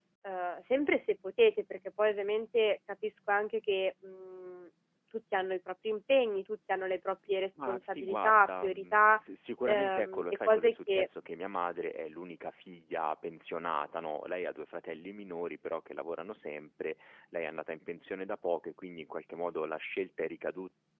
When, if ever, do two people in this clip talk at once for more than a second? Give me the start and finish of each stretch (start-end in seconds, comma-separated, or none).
7.7-9.2, 9.7-11.1